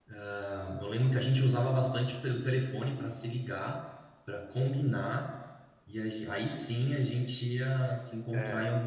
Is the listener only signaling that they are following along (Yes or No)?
Yes